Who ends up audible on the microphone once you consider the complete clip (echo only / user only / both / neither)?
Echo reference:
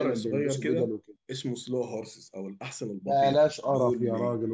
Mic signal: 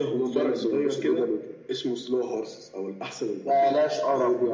echo only